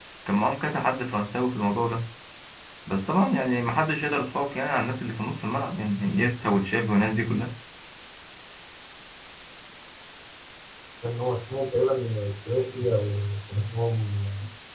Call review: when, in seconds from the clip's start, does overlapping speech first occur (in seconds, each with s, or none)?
none